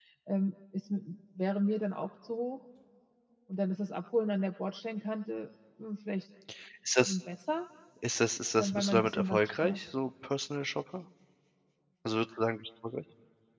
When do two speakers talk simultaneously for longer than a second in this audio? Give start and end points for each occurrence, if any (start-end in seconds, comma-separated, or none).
8.6-9.8